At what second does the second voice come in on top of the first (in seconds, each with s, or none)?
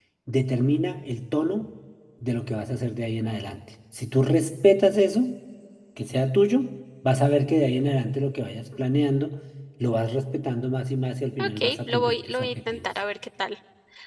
11.4 s